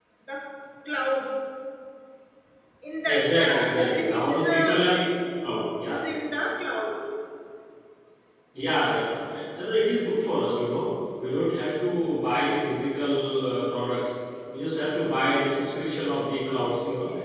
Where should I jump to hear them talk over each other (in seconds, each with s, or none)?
3.0 s